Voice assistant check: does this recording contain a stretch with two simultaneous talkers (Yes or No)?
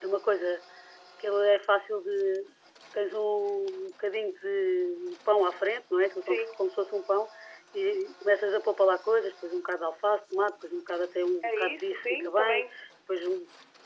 Yes